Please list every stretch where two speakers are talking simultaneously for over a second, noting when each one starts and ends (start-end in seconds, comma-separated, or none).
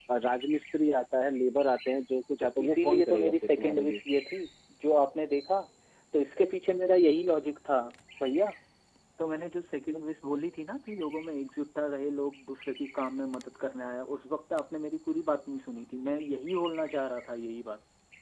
2.4-4.0